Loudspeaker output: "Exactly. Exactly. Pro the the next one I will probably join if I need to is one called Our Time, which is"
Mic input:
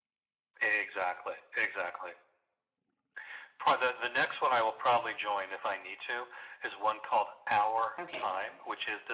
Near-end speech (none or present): present